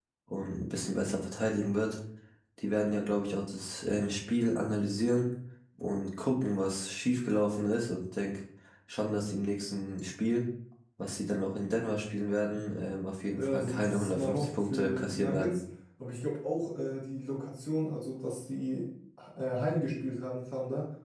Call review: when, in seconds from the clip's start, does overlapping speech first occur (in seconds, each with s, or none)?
13.4 s